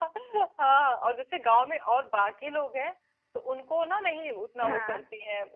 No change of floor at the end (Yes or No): Yes